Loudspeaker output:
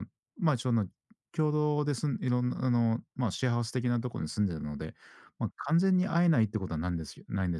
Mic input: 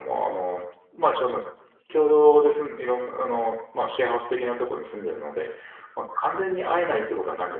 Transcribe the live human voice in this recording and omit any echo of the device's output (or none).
none